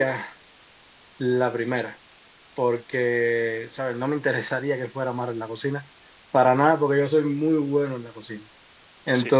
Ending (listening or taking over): listening